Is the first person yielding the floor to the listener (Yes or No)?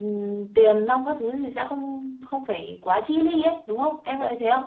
Yes